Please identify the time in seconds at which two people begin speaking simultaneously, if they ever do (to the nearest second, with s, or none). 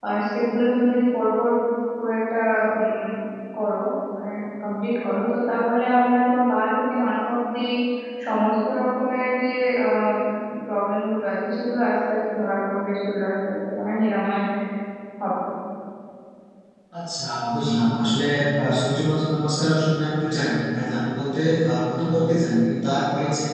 none